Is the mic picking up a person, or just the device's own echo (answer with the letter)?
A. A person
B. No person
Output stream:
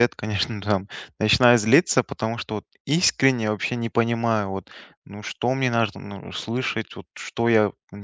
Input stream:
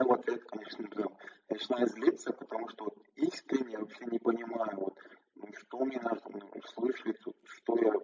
B